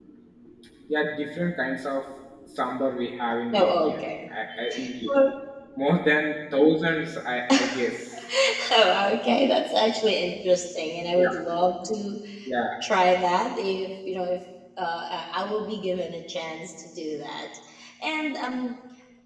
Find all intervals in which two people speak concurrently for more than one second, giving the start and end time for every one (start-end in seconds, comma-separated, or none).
none